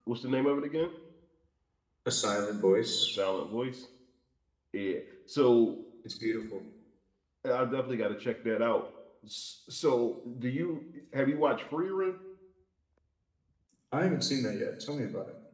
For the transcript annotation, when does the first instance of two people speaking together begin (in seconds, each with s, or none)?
none